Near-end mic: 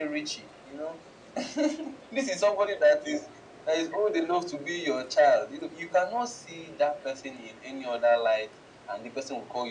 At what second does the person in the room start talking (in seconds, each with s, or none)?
none